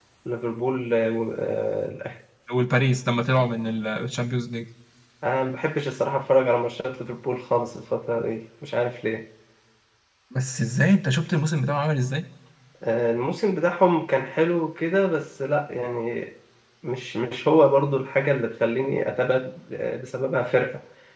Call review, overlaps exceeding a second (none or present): none